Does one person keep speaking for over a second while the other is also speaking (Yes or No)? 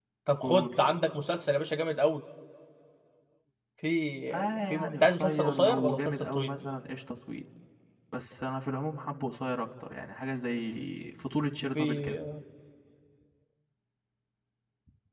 Yes